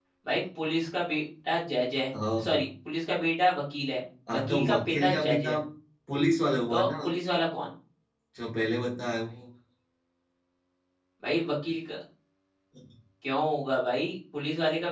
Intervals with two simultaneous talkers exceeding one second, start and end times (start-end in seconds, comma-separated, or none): 4.3-5.6